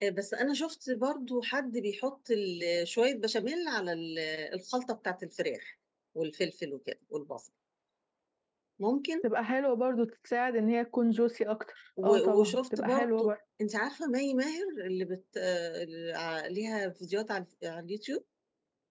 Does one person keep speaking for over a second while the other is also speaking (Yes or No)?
Yes